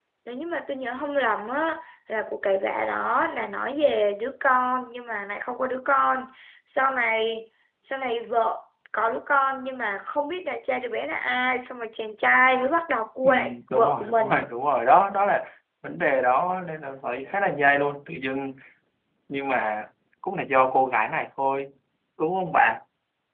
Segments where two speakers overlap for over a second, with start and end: 13.2-14.5

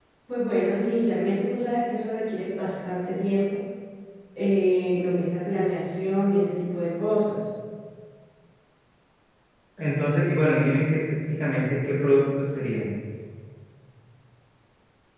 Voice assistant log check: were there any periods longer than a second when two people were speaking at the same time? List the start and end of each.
none

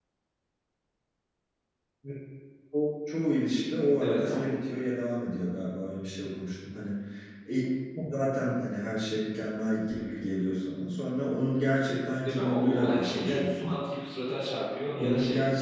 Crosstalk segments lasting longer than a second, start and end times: 12.2-13.7

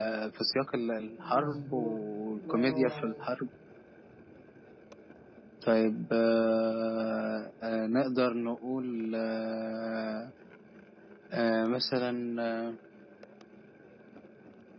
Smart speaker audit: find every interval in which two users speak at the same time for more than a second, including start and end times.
1.2-3.2

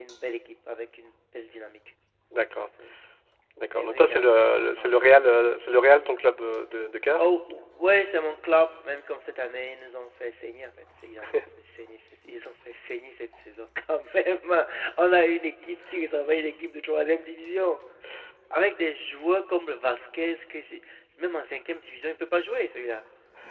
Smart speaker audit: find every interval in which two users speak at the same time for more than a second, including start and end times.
3.7-5.1

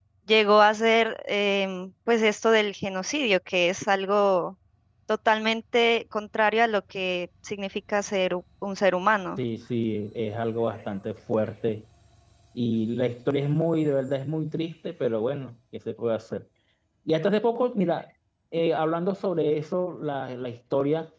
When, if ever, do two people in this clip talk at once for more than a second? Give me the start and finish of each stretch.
none

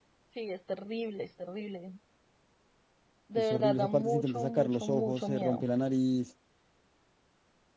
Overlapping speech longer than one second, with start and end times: 3.4-5.6

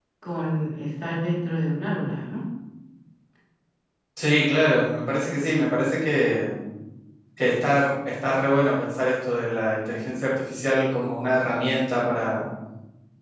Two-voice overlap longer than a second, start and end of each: none

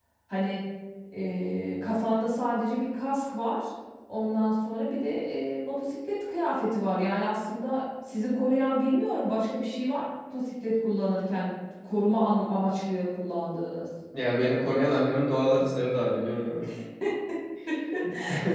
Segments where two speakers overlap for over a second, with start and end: none

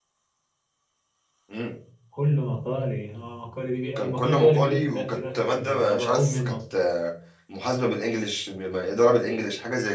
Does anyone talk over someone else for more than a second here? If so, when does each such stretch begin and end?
4.0-6.5

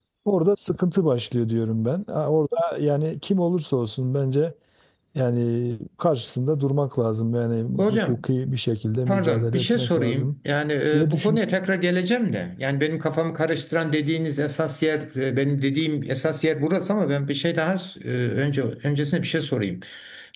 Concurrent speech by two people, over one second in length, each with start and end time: 9.1-10.3

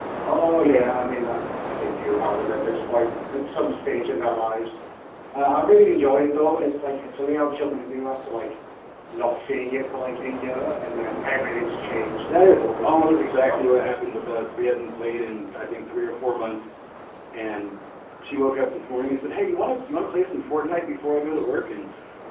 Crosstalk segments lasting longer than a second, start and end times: 12.3-13.6

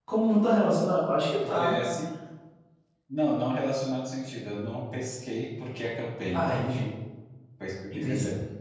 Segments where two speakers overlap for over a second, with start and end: none

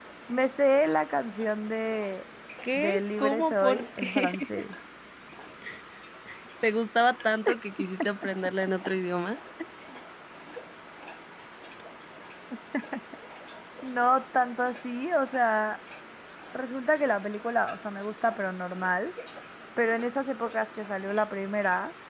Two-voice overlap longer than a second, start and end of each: 2.7-4.6

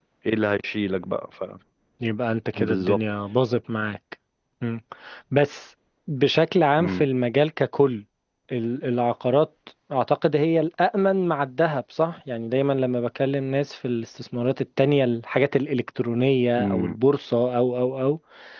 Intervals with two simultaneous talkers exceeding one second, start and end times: none

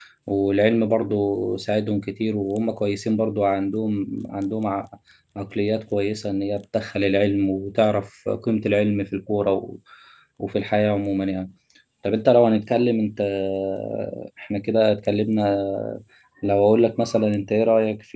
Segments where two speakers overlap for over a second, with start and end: none

